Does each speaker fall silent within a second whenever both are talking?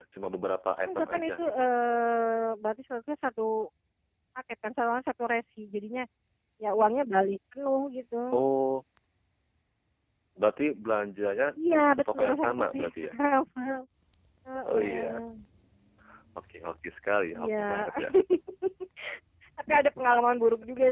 No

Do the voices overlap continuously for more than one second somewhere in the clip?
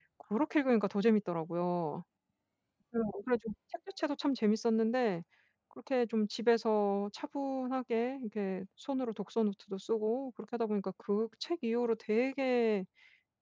No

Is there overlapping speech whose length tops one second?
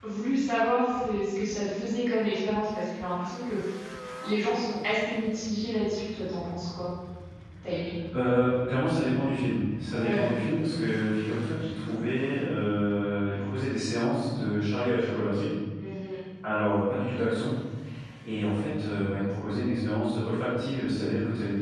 No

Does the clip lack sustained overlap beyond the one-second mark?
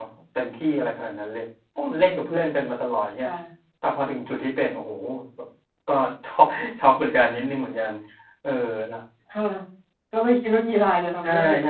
Yes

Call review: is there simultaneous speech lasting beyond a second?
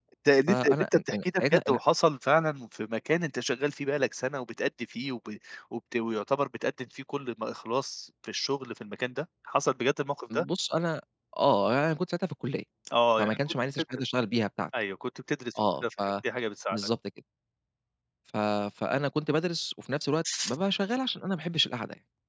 Yes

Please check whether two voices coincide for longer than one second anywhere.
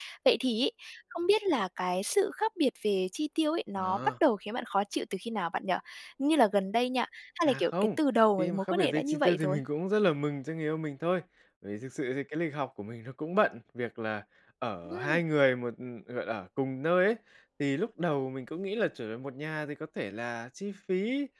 Yes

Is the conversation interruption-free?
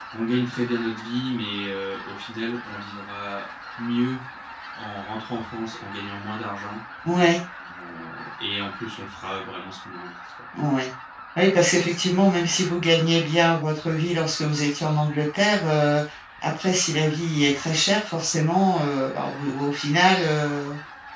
Yes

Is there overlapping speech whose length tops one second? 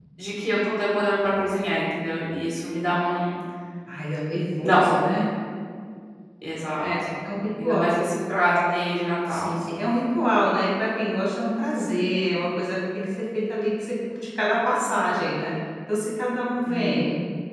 No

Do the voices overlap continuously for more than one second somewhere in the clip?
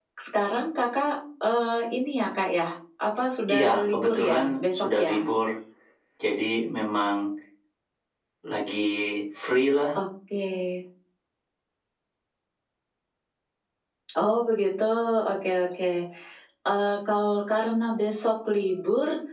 Yes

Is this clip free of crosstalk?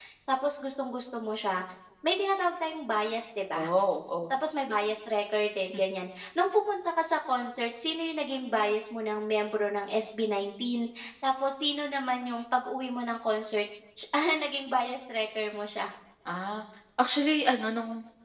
Yes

